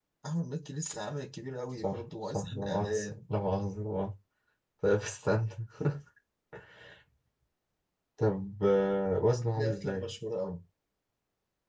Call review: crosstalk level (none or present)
present